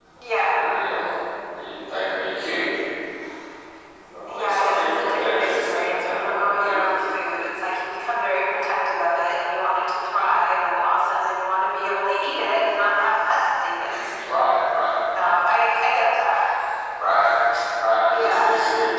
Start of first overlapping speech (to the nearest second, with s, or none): 4 s